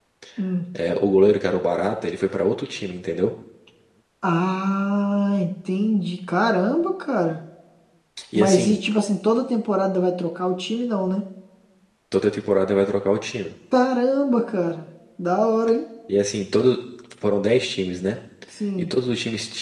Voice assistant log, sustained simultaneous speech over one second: none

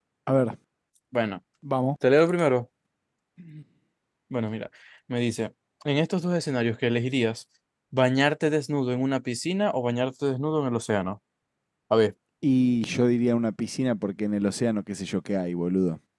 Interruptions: none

